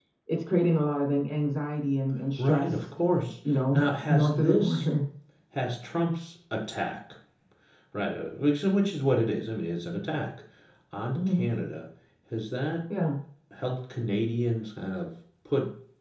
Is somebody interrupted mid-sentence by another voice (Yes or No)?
Yes